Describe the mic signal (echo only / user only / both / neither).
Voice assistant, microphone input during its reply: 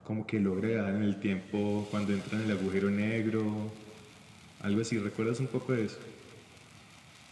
echo only